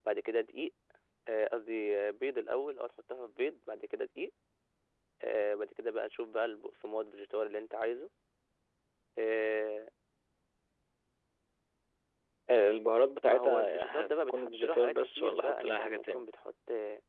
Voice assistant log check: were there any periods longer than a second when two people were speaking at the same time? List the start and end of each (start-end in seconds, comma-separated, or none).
13.2-16.2